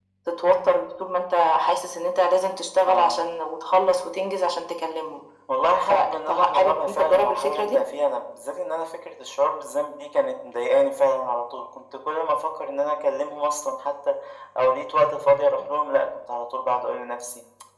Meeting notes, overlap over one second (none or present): present